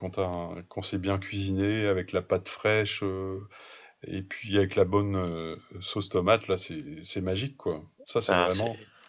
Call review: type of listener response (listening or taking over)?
taking over